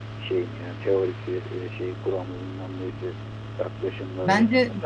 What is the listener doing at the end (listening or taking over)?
taking over